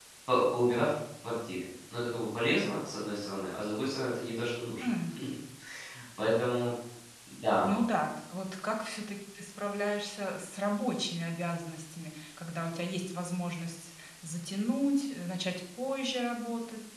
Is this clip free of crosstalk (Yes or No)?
Yes